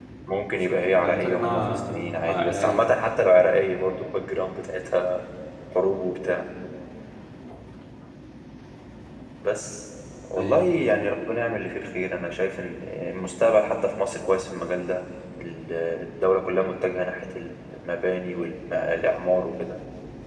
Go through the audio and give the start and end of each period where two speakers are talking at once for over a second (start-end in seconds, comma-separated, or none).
1.0-3.0